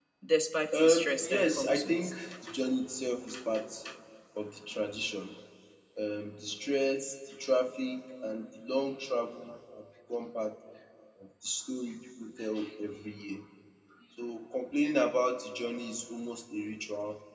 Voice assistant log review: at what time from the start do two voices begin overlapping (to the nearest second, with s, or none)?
1 s